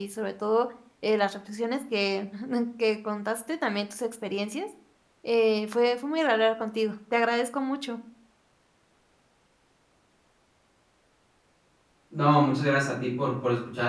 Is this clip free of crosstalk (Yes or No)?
Yes